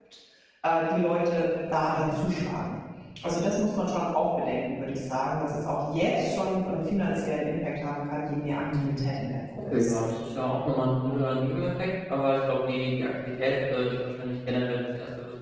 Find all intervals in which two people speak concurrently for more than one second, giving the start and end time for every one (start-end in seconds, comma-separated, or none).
none